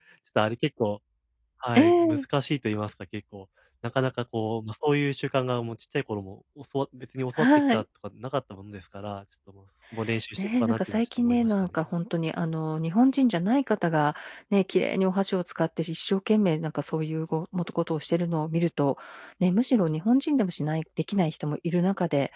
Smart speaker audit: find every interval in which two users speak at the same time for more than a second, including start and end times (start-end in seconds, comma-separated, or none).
10.4-11.7